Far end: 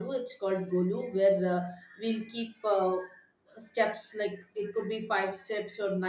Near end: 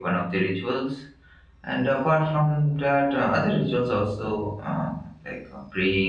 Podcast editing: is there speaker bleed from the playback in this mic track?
No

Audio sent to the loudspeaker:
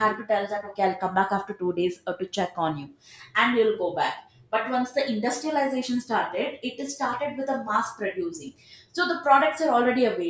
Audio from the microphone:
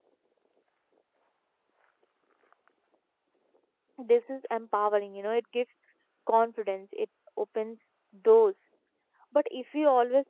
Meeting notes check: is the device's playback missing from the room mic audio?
Yes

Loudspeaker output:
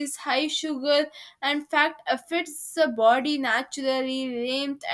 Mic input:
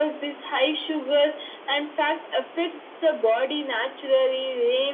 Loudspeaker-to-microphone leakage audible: Yes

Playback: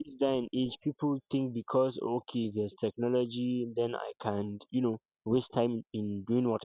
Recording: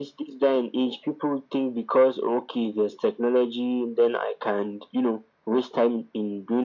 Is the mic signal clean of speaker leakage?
No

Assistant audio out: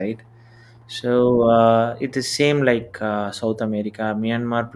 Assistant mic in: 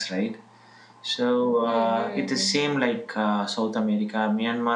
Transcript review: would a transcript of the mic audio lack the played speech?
No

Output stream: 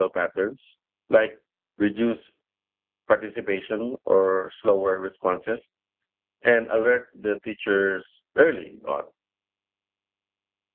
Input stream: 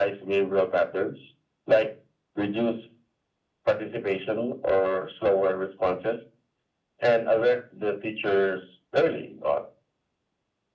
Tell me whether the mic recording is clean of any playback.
No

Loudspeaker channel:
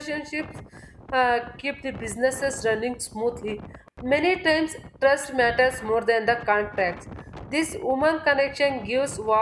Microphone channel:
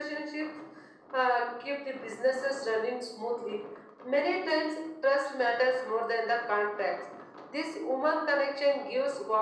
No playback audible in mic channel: No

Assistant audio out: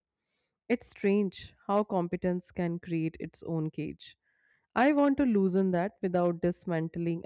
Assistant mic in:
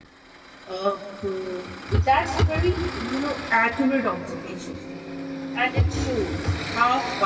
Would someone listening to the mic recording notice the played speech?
No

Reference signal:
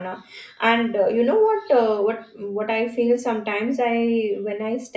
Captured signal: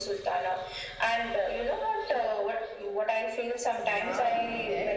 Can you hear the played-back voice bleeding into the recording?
Yes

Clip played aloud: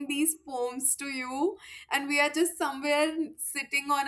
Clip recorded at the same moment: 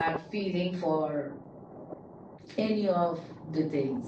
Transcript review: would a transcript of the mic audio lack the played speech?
Yes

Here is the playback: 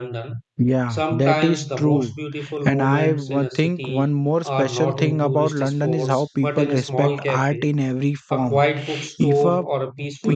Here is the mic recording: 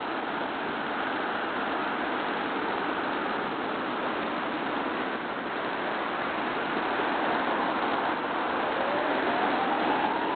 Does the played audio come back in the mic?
No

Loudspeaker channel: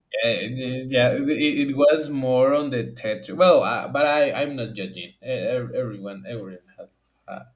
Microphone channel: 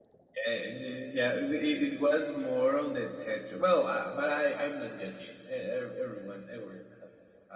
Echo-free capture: No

